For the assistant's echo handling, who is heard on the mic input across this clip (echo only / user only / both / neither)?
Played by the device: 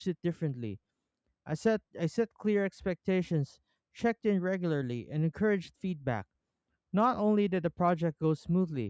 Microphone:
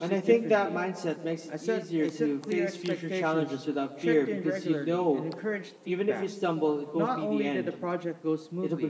both